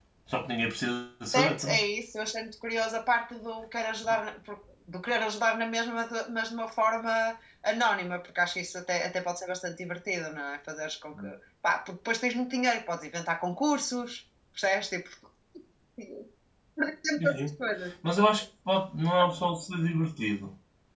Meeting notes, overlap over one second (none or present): none